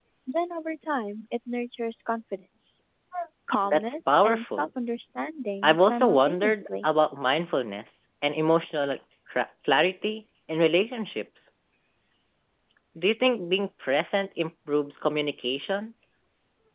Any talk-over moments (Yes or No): Yes